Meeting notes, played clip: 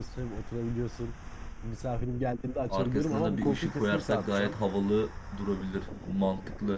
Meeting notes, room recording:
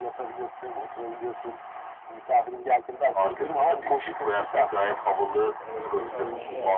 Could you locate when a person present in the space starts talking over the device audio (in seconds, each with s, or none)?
5.6 s